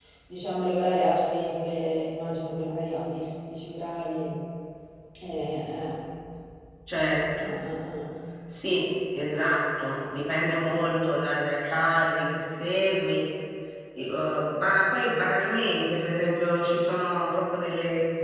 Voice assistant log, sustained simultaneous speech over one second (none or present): none